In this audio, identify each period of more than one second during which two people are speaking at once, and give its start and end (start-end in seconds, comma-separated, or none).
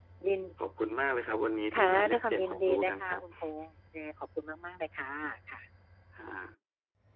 1.8-3.2